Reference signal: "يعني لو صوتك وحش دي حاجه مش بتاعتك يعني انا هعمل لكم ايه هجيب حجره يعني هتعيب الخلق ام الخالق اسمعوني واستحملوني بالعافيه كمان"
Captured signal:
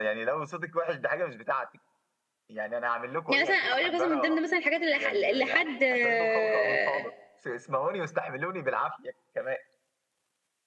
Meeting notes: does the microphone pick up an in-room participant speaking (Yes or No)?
Yes